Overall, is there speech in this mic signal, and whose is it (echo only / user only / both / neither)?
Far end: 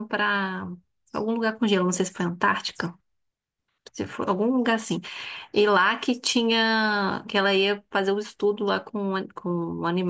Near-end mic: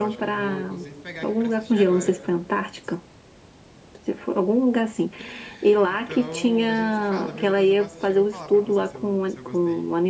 both